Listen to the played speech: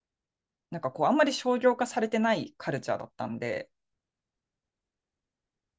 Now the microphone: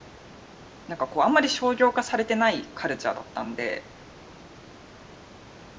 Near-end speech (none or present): none